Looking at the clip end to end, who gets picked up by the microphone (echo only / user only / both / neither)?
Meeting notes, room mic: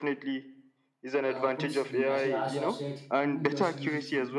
both